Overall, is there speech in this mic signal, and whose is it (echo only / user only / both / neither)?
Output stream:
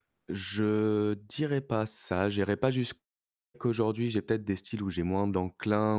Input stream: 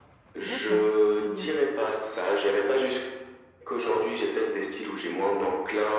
both